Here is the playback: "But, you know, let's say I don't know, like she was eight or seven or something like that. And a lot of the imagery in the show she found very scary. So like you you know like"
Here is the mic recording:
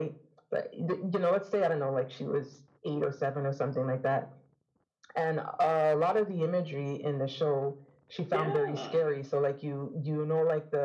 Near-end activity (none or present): present